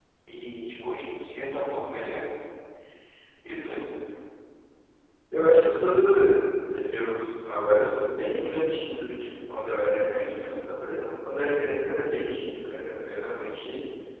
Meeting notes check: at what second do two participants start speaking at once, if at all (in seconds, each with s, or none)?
none